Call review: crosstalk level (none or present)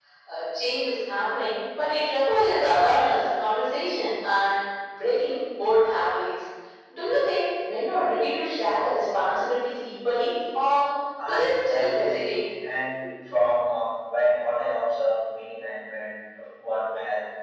present